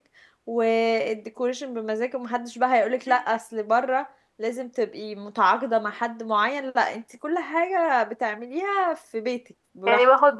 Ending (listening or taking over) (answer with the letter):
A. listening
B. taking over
B